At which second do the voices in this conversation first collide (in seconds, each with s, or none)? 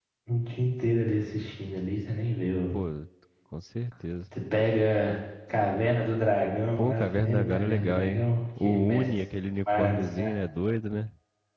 6.8 s